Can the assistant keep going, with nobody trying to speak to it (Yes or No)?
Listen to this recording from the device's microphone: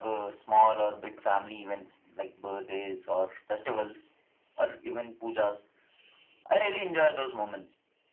Yes